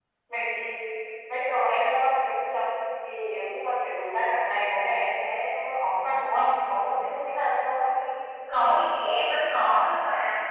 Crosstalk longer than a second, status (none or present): none